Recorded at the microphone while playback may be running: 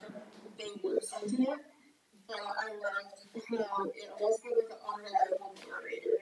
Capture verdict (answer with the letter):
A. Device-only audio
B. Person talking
A